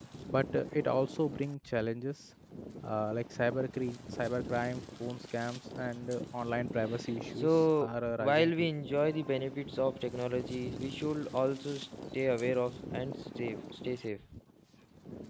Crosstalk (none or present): present